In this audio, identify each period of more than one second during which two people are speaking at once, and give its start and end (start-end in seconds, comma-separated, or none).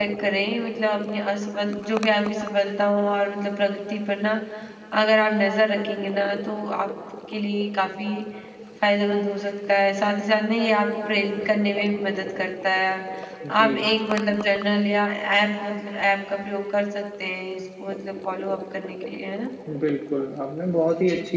none